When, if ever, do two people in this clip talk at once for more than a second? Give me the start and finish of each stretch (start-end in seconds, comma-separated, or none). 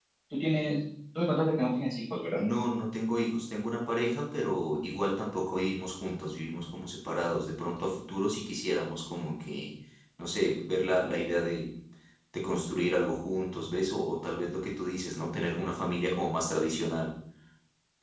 none